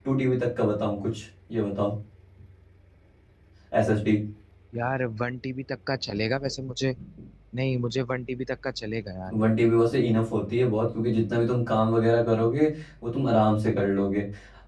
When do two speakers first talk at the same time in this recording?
none

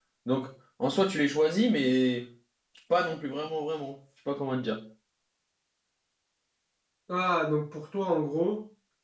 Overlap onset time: none

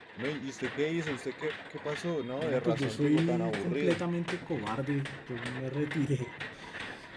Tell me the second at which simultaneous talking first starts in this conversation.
2 s

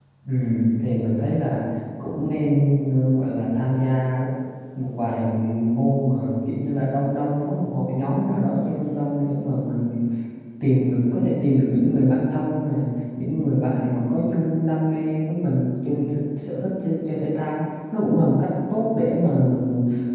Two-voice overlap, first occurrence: none

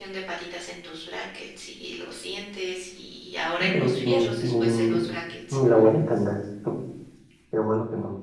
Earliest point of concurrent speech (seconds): 4 s

